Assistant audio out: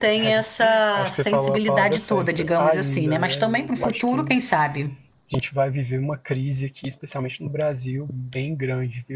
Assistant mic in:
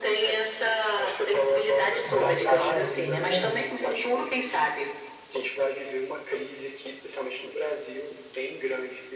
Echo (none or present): present